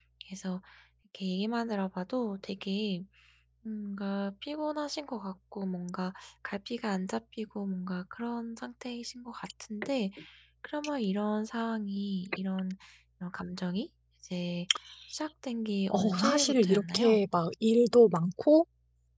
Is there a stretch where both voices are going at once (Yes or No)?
Yes